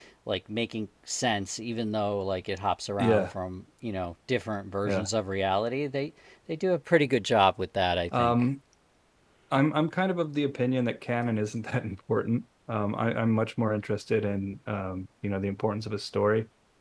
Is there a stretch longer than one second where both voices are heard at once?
No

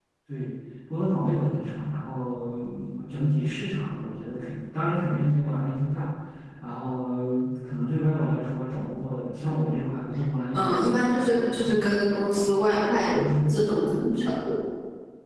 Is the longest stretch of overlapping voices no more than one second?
No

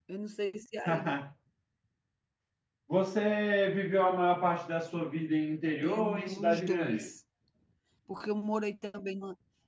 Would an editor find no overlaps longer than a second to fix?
No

